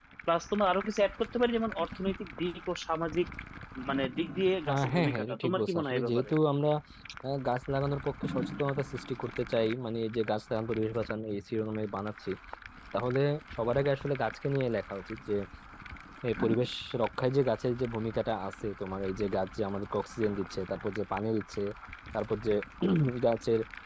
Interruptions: present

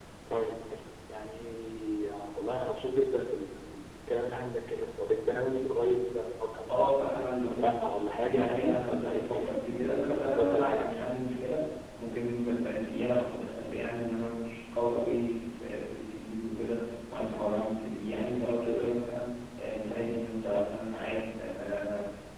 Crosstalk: present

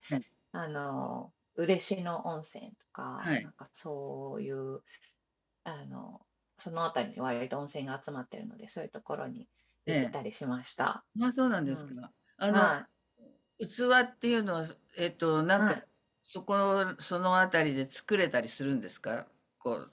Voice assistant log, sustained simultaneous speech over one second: none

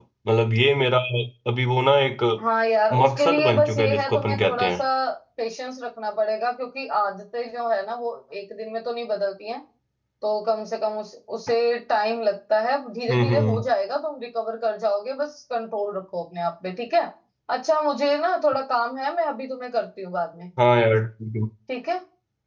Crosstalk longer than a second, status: present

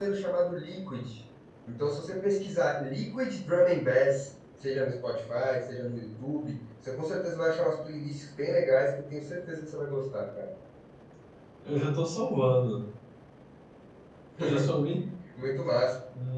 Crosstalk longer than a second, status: none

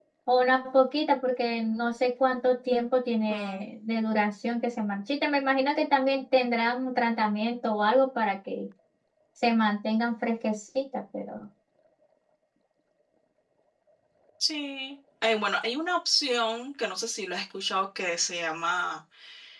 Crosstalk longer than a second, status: none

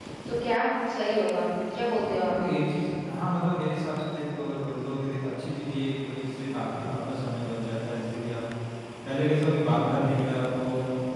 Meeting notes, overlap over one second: none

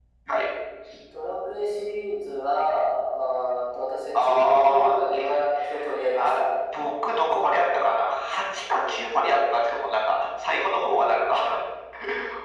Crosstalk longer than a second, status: present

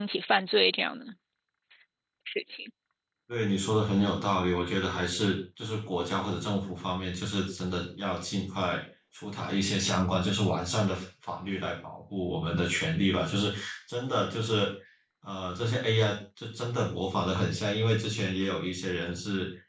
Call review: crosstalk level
none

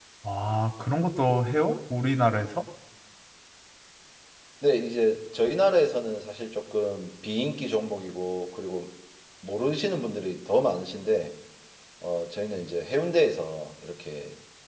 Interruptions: none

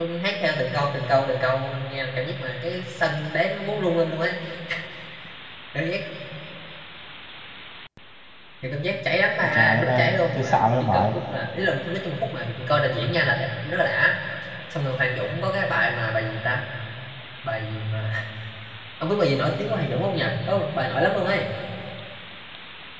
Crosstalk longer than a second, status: present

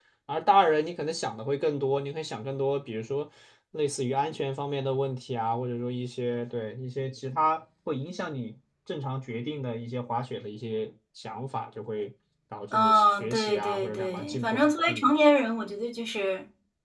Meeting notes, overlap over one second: present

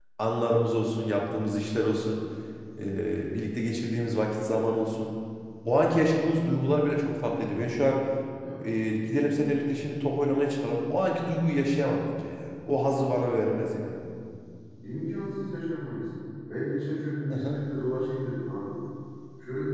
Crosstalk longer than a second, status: none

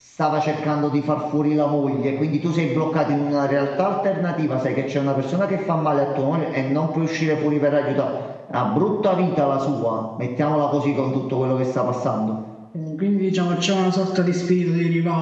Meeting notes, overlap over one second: none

